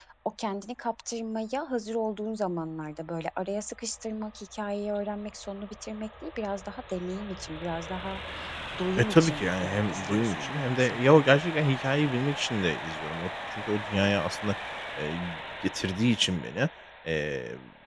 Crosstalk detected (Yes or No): Yes